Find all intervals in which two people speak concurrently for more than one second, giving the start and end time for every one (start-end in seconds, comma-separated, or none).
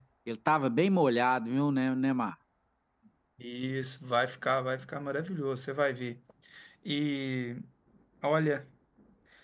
none